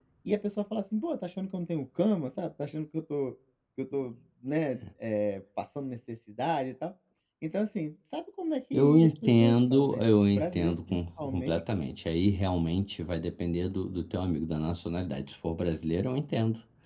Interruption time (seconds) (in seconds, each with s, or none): 8.7 s